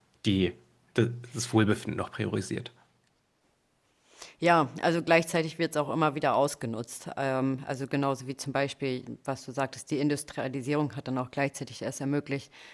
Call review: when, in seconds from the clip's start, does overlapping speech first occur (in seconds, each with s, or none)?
none